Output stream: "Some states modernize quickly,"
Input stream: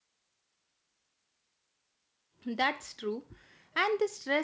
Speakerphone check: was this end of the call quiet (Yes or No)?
No